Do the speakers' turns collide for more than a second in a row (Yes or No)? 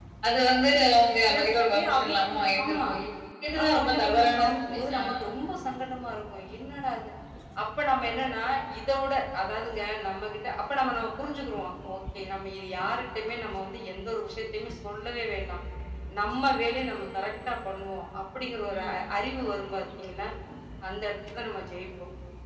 Yes